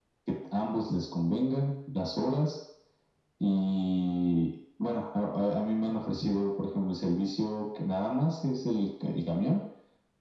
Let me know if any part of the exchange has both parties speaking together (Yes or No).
No